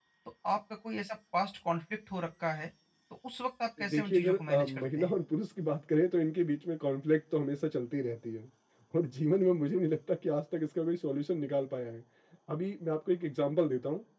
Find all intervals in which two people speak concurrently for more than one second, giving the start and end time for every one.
3.9-5.1

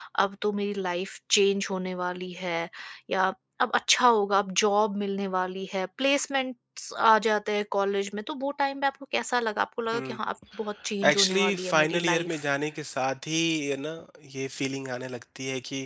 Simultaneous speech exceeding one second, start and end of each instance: 11.1-12.4

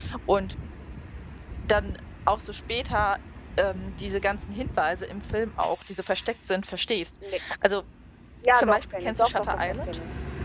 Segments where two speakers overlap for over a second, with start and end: 8.5-9.9

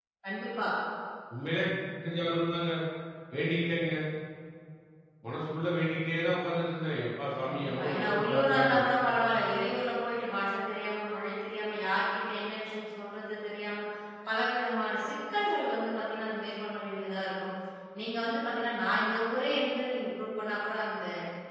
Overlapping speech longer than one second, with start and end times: 7.4-8.8

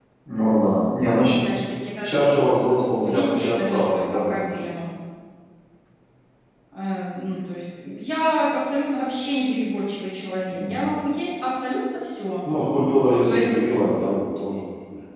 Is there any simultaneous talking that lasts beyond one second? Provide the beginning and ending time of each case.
3.0-4.4

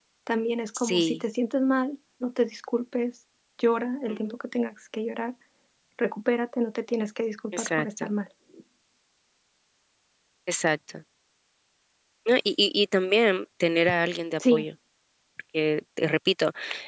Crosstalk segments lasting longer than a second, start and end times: none

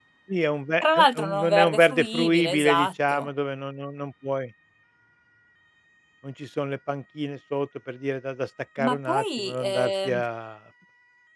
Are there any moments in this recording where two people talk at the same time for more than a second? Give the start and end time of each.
0.8-3.3, 8.8-10.2

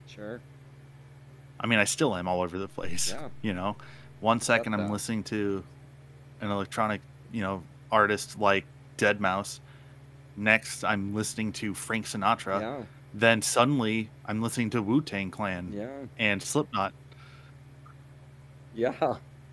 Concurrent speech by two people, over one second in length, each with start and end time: none

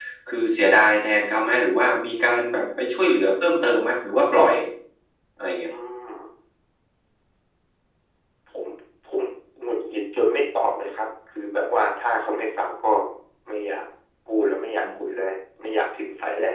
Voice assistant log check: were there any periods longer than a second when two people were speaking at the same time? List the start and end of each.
none

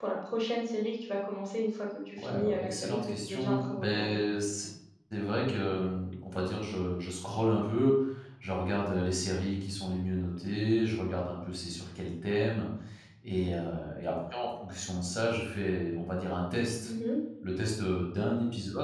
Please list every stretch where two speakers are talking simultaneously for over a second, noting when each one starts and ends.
2.2-4.2

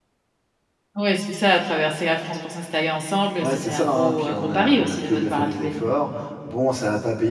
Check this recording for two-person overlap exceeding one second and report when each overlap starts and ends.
3.4-5.8

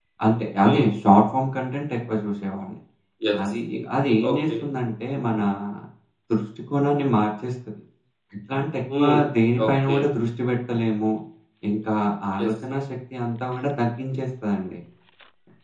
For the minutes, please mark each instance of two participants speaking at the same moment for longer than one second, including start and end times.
none

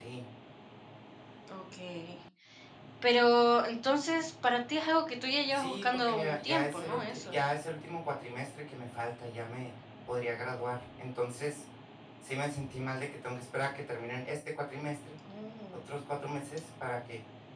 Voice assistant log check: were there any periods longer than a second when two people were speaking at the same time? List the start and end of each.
5.5-7.4

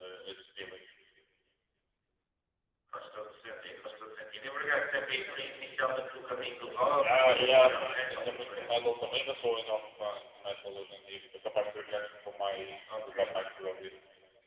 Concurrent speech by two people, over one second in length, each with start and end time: 7.0-8.6

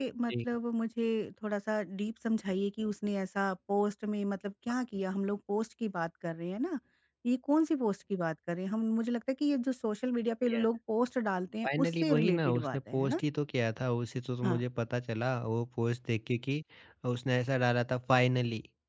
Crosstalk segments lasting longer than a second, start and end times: 11.6-13.2

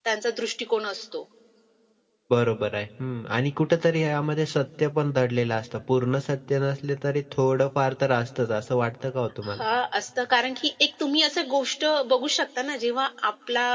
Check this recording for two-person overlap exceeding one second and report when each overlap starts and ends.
none

